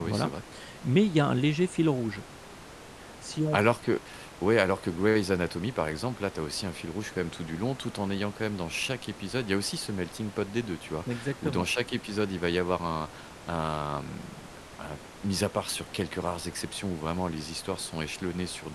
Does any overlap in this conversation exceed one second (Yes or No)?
No